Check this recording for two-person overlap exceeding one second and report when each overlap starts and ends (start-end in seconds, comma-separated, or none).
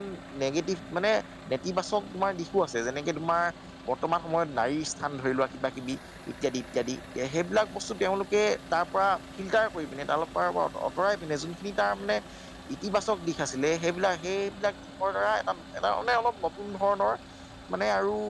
none